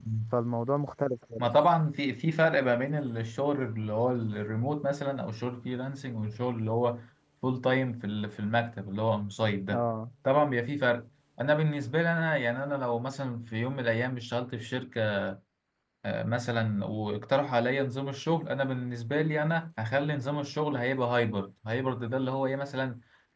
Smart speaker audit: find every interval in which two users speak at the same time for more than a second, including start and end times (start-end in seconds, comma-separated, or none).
none